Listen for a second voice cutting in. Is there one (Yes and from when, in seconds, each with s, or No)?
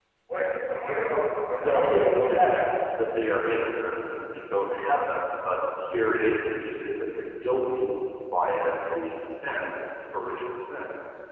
Yes, from 1.0 s